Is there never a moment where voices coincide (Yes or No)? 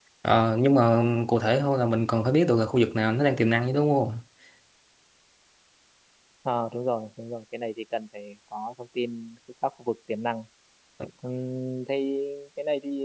Yes